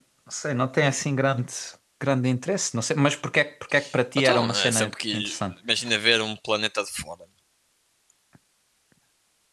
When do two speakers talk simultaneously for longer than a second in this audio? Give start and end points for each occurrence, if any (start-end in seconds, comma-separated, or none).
4.2-5.4